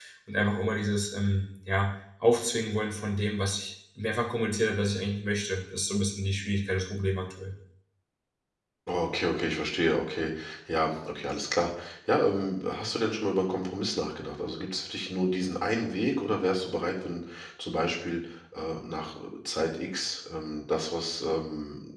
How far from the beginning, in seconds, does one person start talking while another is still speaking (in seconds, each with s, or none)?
none